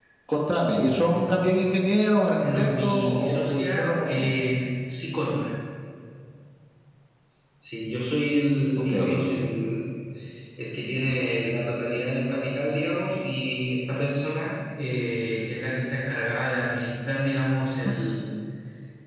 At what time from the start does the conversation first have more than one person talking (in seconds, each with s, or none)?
2.4 s